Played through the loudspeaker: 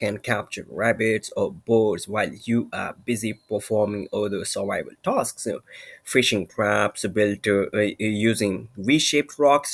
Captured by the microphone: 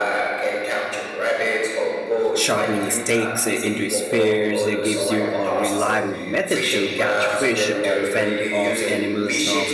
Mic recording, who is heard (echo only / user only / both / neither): both